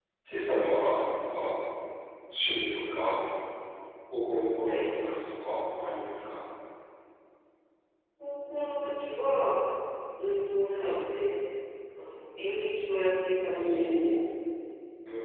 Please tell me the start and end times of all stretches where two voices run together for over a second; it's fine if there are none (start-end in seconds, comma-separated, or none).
none